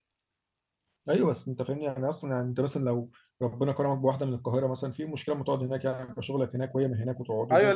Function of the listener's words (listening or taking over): taking over